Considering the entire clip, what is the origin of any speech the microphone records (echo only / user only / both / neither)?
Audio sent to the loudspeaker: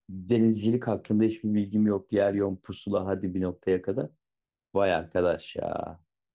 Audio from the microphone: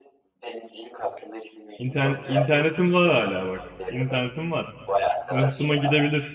both